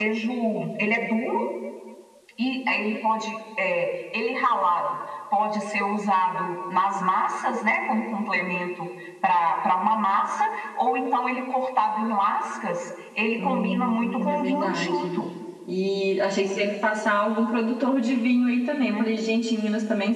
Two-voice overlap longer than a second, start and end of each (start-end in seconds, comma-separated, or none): 13.4-15.1